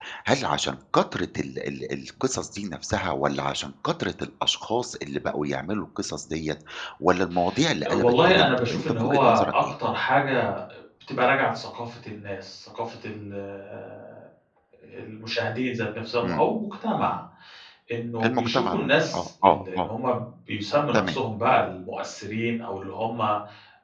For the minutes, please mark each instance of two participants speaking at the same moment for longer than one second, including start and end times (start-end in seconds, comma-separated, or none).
7.9-9.7, 18.2-19.9